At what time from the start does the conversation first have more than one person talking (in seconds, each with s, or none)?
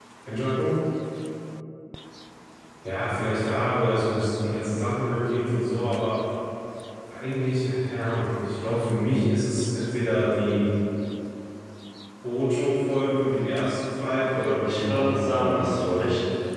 14.6 s